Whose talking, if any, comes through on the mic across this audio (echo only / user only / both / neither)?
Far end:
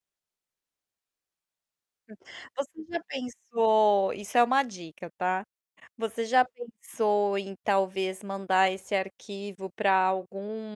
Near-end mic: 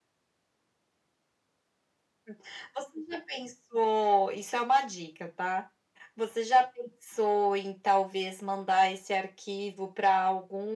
echo only